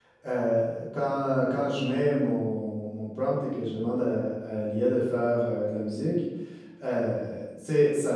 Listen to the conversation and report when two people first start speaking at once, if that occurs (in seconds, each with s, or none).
none